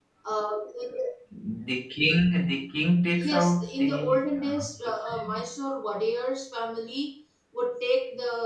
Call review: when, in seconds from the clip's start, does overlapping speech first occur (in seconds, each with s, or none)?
3.2 s